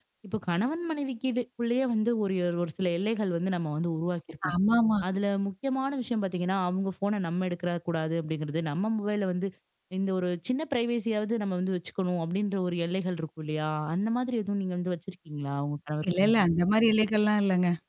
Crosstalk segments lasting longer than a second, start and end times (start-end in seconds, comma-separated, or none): none